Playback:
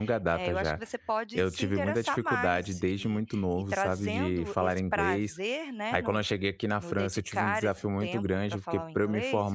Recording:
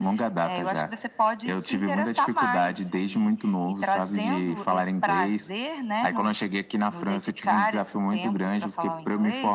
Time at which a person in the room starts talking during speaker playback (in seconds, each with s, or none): none